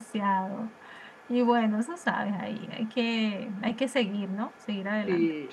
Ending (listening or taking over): taking over